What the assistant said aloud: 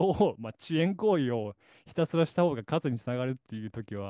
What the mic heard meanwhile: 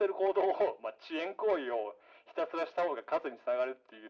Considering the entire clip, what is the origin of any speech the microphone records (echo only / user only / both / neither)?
echo only